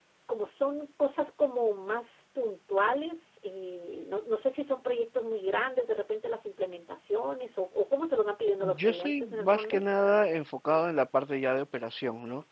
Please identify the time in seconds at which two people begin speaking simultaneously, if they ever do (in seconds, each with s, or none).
8.6 s